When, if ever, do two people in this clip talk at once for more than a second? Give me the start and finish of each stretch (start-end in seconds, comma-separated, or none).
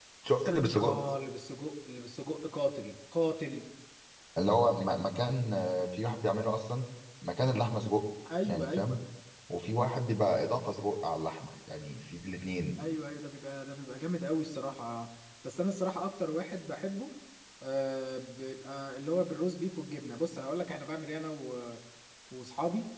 none